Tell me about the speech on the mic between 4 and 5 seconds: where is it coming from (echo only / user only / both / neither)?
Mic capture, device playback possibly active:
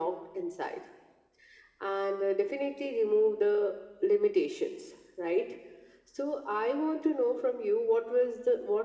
echo only